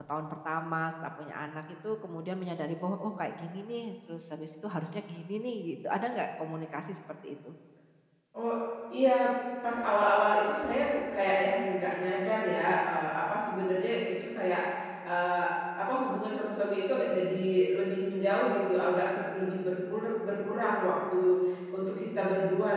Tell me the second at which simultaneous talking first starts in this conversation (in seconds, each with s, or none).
none